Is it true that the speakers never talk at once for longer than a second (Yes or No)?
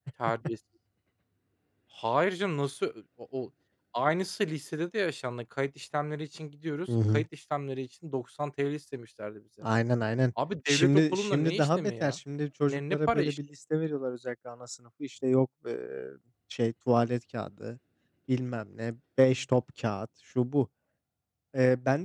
No